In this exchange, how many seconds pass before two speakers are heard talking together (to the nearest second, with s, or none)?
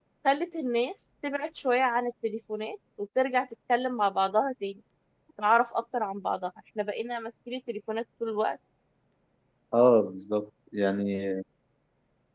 none